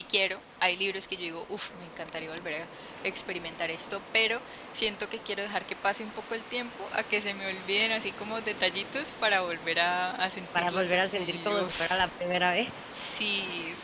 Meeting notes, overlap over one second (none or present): present